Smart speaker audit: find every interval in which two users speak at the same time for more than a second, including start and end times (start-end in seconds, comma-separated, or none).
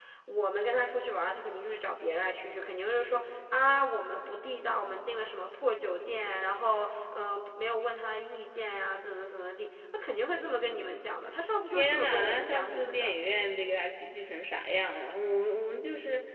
11.7-13.1